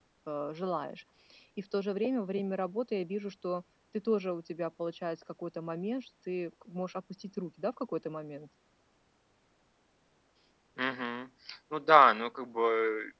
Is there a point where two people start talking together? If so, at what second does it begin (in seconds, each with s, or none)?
none